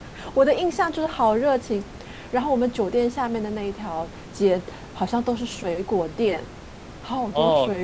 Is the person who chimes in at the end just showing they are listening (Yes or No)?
No